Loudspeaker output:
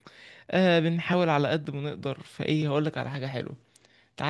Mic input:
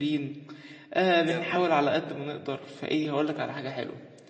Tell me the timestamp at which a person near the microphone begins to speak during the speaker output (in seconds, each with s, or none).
1.2 s